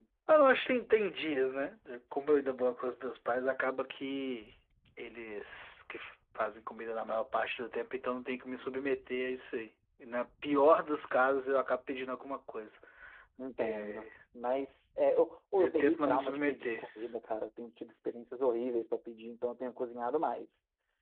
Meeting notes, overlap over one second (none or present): present